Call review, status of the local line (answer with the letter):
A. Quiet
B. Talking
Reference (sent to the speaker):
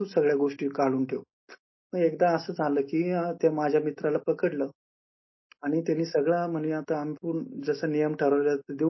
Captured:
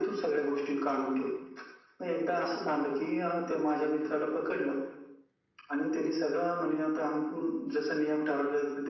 A